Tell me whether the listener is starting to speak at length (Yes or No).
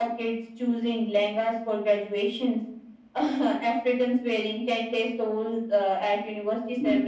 No